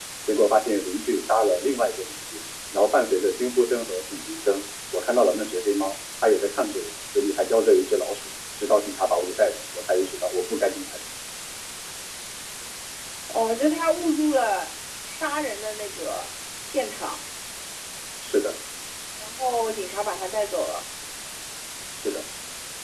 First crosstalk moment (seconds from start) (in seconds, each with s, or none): none